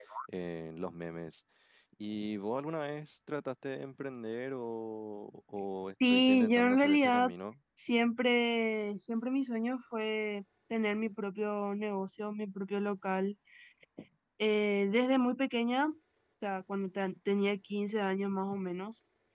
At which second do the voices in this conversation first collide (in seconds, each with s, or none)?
6.1 s